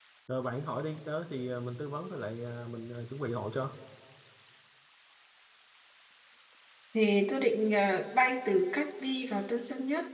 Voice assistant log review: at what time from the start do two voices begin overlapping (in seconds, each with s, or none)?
none